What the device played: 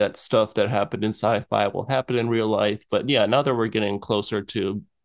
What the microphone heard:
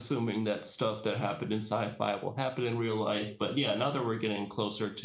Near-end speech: none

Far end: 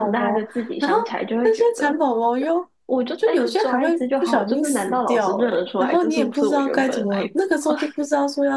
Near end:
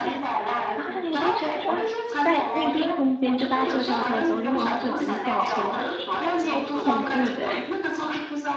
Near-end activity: present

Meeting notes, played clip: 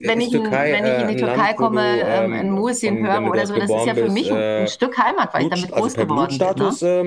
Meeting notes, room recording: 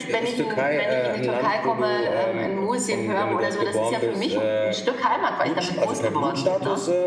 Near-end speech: none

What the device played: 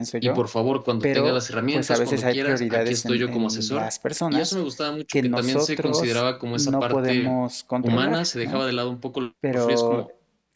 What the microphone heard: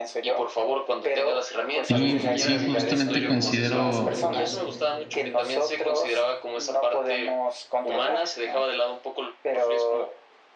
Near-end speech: present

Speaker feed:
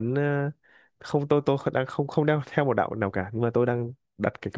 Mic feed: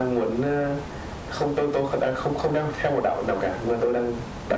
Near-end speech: none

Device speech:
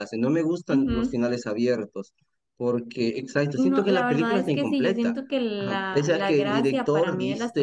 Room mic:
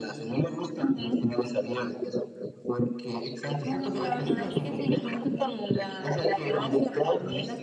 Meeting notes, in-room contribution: none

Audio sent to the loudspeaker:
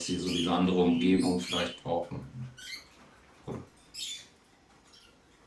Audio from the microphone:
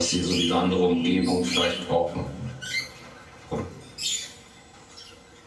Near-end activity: none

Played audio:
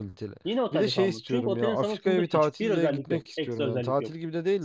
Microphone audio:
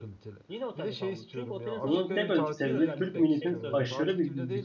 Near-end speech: present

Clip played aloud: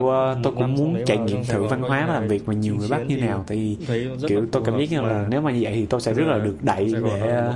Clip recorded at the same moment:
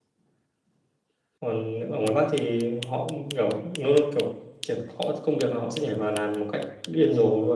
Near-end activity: present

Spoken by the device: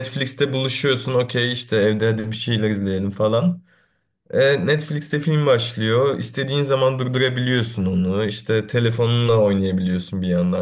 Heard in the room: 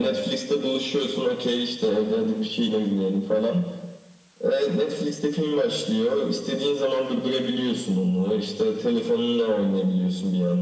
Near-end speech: none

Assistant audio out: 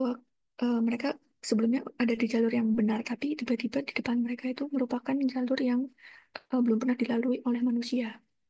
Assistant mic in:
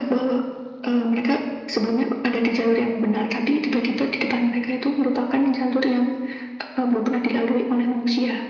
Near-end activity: none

